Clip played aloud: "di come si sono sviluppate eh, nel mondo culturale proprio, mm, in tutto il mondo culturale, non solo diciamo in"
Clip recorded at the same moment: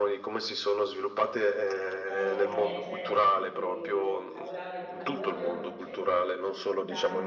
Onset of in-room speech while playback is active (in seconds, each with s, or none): 2.0 s